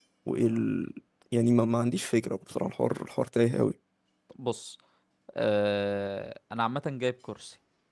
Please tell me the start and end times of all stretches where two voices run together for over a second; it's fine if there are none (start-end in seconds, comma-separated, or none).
none